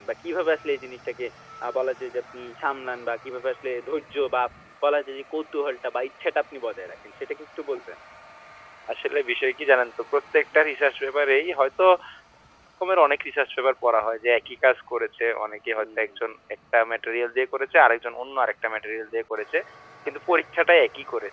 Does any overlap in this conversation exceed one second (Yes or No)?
No